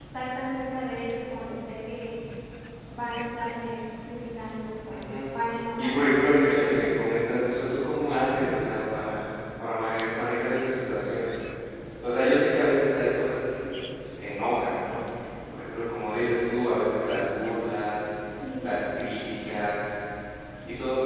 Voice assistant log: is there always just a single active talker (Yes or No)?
No